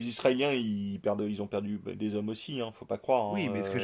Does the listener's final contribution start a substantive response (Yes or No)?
Yes